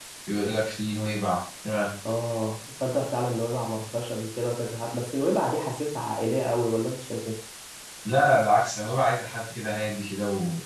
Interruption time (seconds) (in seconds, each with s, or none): none